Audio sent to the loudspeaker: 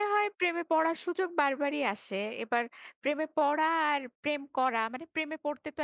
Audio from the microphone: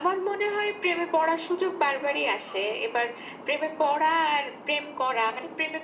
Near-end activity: none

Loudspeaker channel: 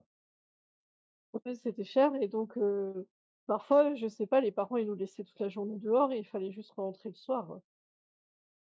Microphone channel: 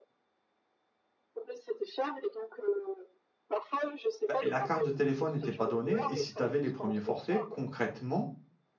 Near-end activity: present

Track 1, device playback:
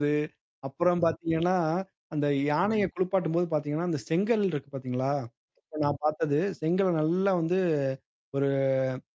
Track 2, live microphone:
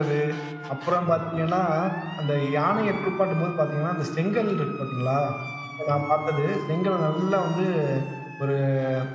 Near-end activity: none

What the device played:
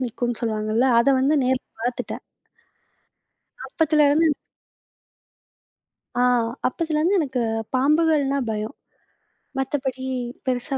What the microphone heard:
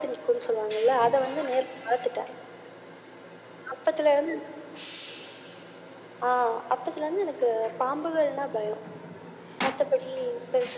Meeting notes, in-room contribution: none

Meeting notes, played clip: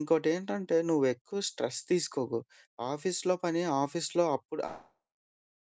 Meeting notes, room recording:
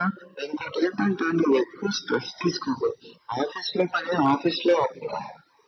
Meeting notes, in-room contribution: none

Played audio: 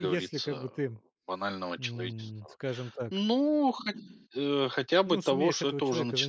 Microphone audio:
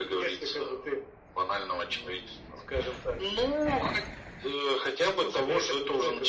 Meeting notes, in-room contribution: none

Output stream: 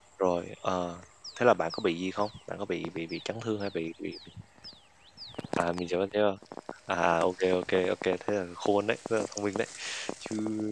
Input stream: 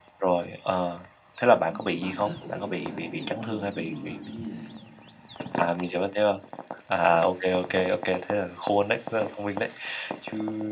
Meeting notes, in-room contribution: present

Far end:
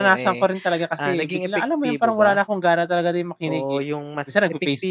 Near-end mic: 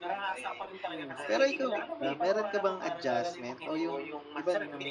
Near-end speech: present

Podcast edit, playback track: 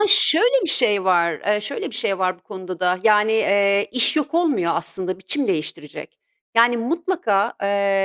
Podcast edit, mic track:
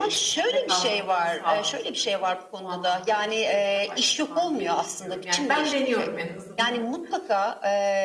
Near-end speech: present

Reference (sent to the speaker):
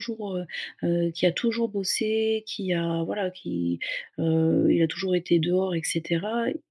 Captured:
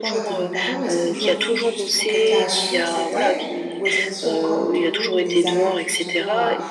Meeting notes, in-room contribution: present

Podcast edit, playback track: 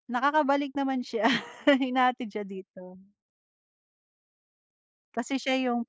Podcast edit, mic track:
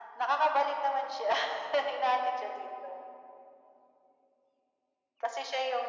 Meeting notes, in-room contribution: none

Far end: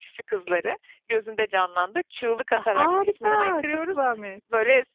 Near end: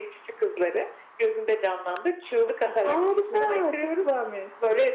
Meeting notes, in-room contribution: none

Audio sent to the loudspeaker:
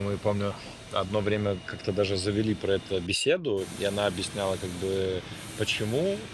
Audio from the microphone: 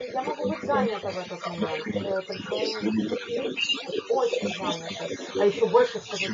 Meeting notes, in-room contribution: present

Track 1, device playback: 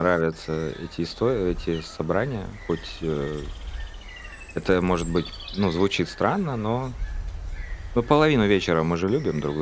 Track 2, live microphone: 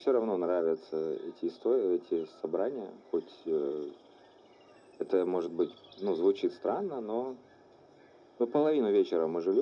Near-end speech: none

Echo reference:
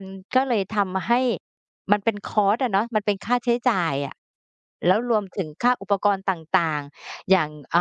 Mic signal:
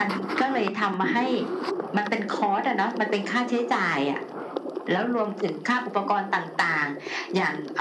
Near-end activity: none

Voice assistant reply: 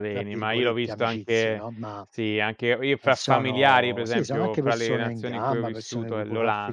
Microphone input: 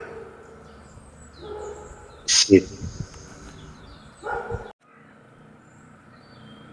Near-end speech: present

